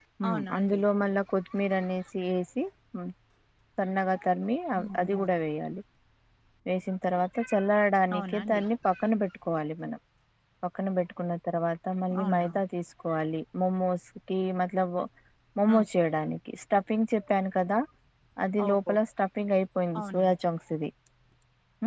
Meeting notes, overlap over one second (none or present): none